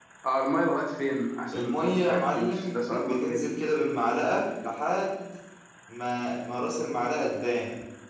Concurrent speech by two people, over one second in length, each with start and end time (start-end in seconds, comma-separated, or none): 1.5-3.5